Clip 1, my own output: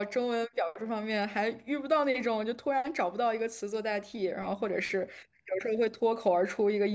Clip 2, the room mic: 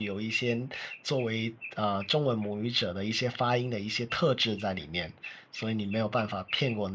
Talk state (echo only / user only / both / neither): user only